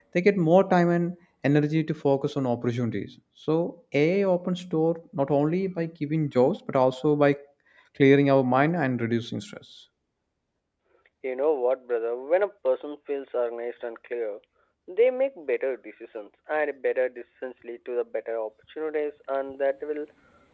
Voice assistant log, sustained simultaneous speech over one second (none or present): none